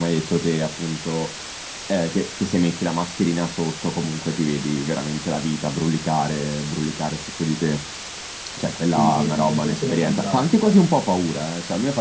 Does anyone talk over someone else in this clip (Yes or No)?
Yes